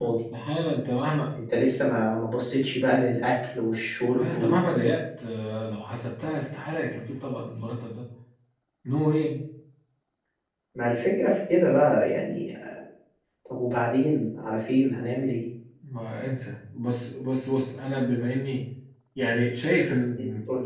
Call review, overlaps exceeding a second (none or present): none